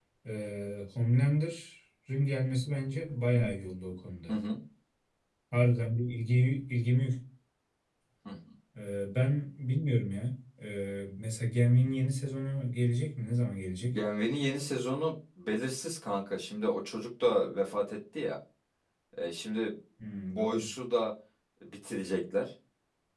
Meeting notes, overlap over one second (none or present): none